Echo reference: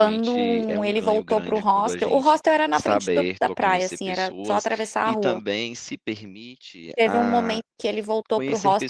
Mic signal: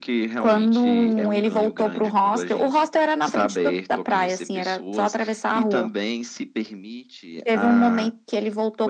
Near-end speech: none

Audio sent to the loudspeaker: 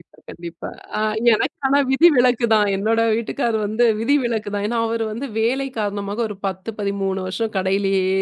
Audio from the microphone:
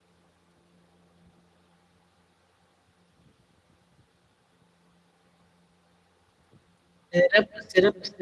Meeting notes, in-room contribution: present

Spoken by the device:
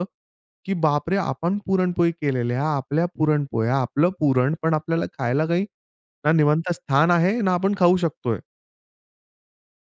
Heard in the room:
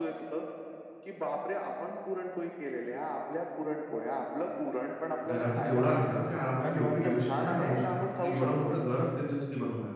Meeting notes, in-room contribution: present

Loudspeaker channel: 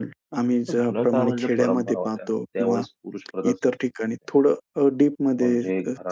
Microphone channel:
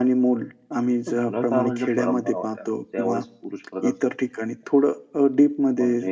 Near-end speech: none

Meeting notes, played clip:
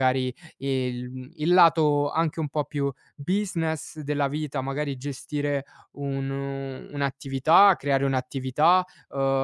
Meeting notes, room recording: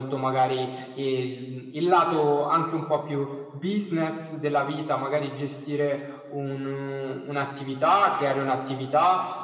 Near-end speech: none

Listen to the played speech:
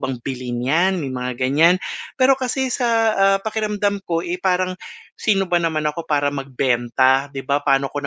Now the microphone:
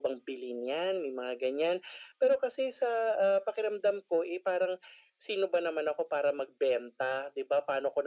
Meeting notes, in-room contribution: none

